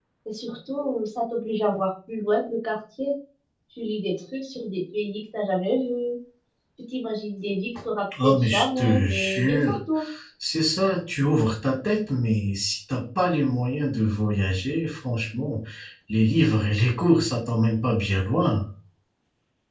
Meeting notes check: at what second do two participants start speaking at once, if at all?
8 s

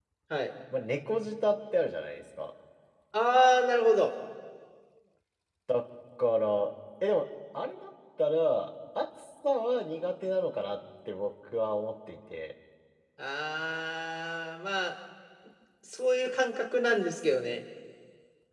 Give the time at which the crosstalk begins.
none

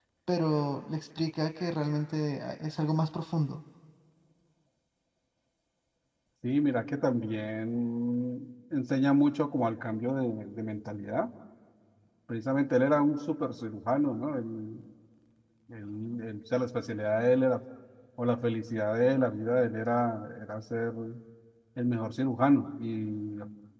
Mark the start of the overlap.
none

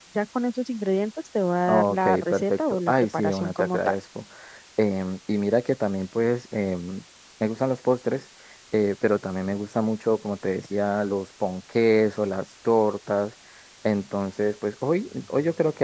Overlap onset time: 2 s

